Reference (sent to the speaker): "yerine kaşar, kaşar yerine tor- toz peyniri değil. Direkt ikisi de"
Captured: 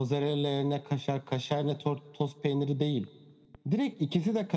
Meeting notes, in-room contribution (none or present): none